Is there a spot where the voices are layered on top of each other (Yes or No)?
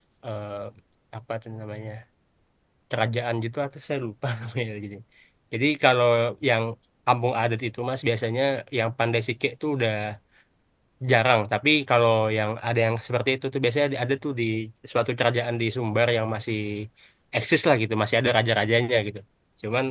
No